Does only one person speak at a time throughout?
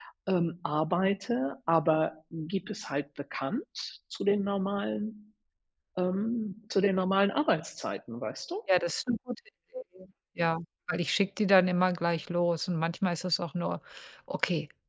Yes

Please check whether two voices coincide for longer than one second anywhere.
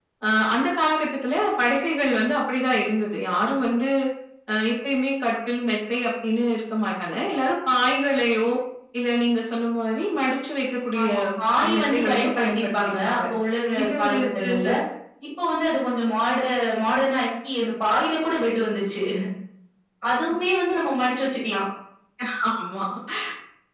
Yes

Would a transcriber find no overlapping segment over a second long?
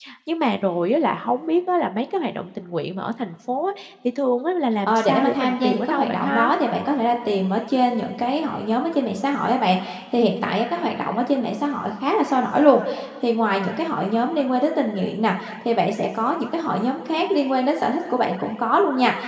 No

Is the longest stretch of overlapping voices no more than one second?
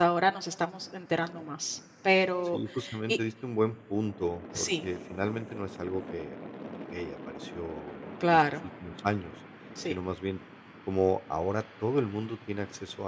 Yes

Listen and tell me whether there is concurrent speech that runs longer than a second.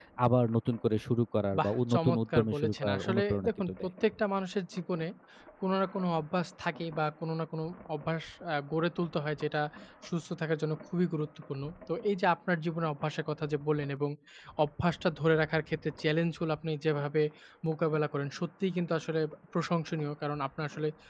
Yes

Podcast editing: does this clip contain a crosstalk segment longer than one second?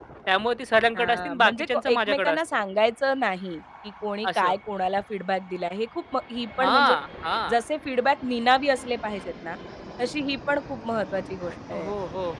Yes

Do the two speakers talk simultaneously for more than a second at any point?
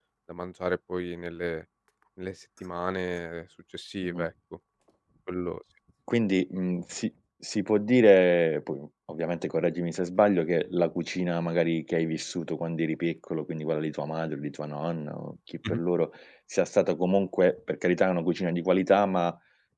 No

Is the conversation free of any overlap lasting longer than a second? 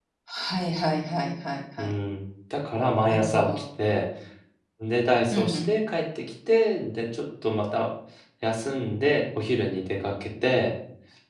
Yes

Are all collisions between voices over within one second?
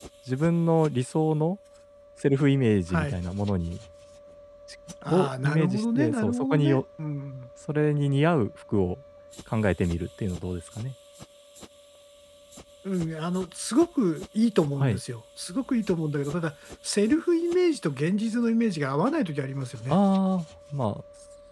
No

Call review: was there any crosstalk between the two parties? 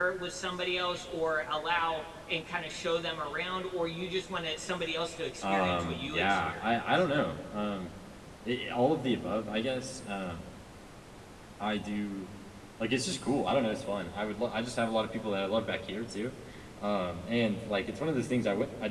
Yes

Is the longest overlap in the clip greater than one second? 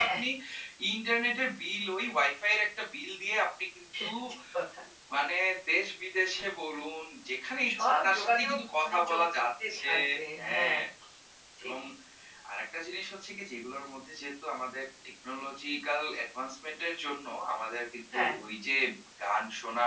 Yes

